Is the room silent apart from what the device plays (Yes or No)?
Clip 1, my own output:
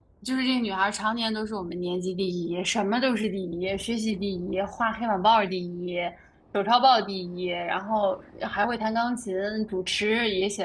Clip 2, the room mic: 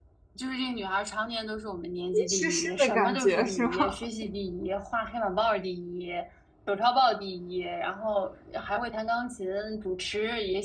No